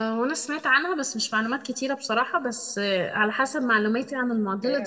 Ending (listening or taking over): taking over